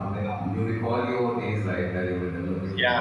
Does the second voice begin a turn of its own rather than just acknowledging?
Yes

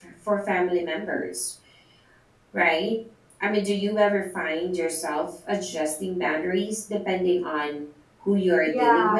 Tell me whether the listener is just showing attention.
No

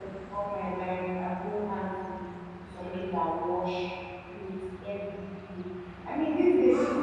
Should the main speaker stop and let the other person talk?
Yes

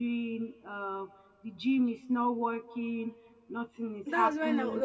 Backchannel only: No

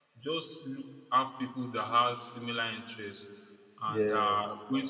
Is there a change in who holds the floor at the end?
No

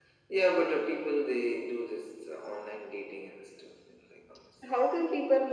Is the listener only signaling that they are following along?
No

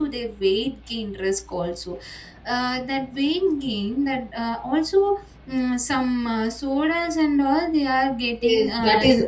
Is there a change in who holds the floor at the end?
Yes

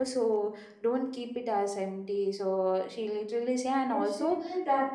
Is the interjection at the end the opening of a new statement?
Yes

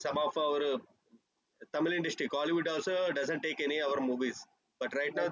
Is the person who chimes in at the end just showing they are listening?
Yes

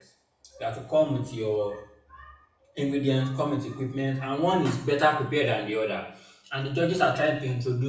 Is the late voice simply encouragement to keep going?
Yes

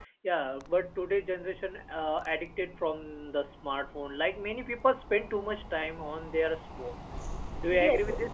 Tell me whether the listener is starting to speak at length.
Yes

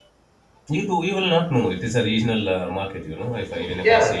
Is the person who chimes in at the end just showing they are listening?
No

